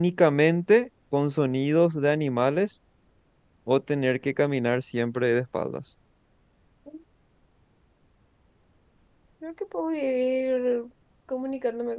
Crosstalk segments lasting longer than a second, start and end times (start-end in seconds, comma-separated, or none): none